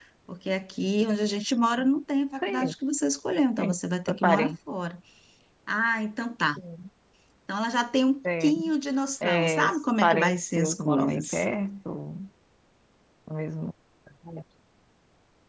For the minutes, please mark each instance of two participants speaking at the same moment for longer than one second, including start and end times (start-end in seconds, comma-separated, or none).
9.2-11.4